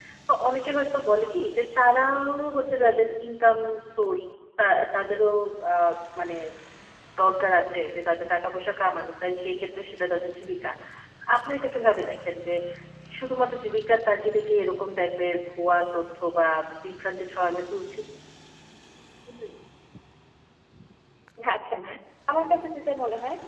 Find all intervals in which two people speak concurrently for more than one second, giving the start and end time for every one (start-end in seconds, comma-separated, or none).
none